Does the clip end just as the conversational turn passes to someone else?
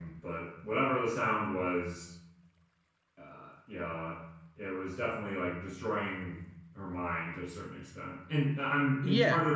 No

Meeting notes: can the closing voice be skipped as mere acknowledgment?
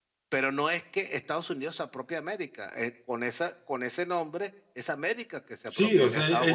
No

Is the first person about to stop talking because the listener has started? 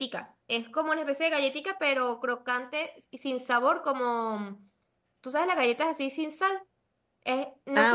No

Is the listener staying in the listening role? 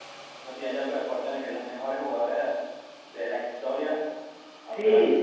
No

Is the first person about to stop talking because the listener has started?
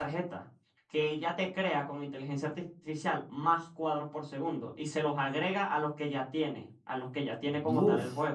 No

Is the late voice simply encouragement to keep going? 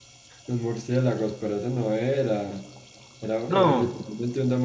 Yes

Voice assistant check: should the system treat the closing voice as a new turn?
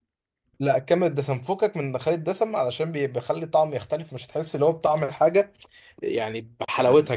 No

